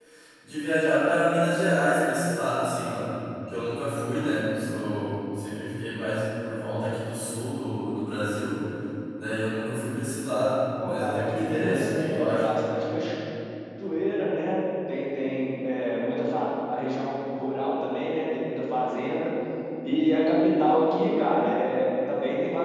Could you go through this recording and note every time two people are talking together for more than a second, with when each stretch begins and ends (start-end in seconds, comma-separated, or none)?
10.8-12.6